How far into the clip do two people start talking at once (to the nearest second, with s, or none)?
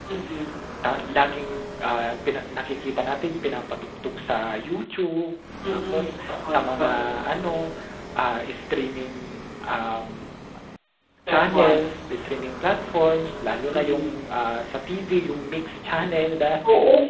6 s